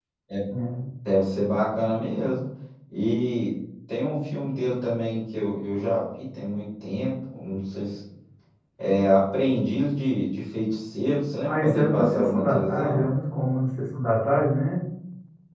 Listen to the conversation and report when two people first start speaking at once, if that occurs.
11.4 s

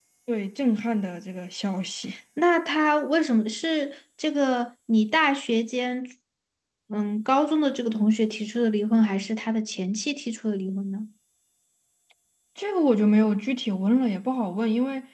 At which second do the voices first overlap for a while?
none

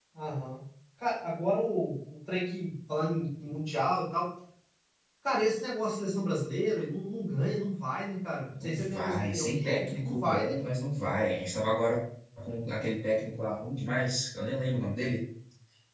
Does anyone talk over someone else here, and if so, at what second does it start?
8.5 s

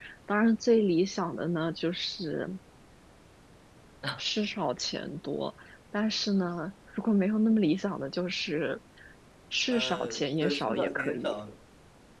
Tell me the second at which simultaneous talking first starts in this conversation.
9.7 s

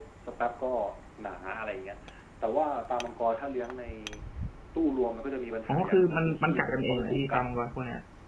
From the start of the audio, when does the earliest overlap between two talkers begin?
5.7 s

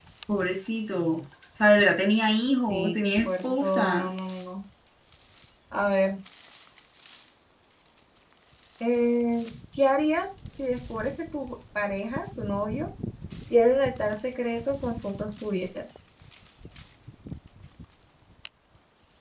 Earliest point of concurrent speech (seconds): 2.7 s

